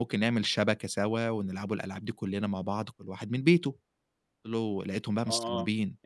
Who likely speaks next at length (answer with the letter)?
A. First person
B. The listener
B